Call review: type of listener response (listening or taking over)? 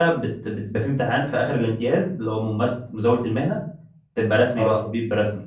listening